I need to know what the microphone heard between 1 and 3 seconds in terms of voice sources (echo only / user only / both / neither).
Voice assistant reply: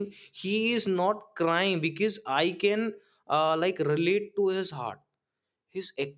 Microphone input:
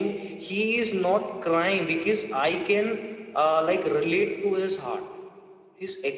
echo only